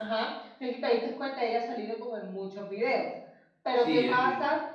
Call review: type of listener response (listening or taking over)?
listening